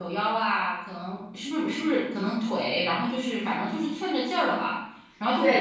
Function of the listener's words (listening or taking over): taking over